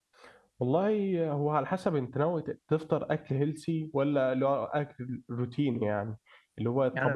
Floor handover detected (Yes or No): Yes